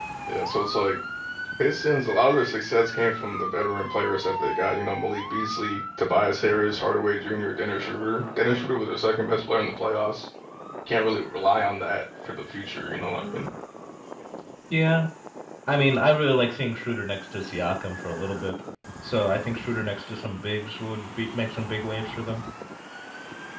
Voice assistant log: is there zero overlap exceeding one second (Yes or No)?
Yes